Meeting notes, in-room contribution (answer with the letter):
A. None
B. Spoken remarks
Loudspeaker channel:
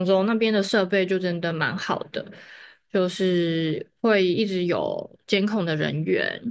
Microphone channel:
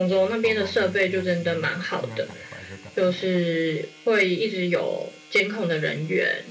B